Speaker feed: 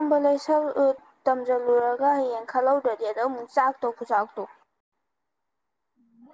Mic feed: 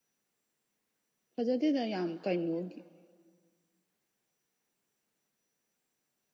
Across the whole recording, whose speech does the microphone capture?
user only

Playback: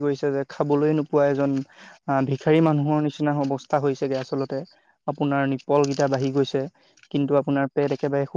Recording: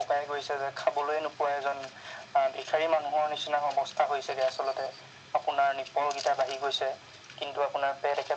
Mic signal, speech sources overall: echo only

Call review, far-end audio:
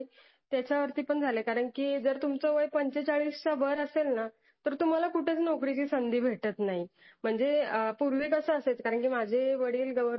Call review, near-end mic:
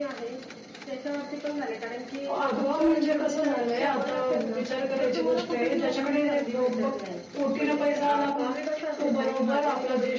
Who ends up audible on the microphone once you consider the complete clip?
both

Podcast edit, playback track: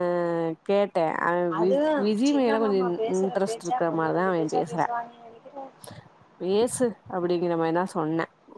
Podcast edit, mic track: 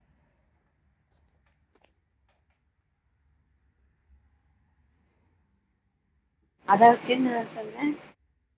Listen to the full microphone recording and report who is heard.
user only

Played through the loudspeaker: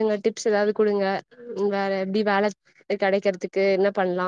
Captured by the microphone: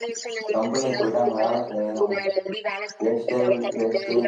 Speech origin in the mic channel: both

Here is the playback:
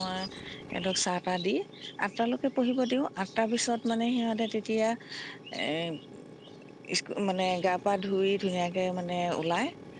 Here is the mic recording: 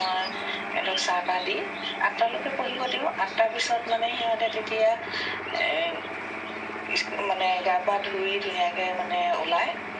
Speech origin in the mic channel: echo only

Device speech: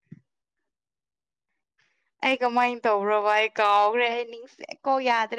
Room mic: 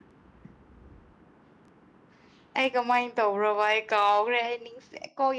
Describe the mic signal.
echo only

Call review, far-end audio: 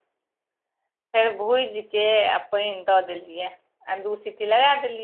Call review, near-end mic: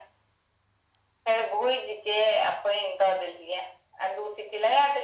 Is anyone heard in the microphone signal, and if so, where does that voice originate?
echo only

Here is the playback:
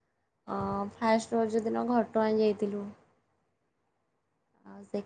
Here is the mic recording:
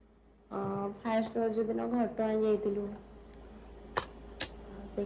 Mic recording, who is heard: echo only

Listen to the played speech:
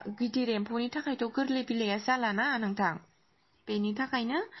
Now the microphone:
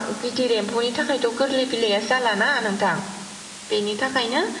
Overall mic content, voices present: echo only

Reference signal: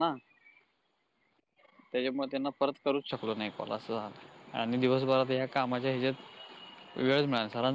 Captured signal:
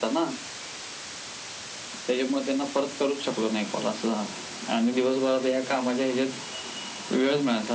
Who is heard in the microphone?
echo only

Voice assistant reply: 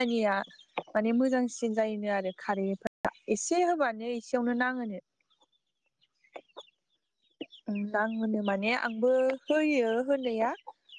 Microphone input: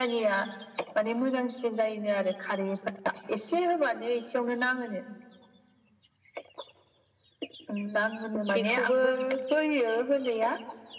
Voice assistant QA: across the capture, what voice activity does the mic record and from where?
both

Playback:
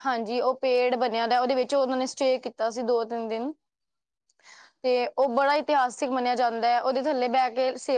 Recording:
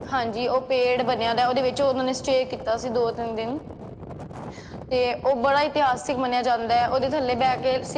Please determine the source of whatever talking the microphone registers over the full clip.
echo only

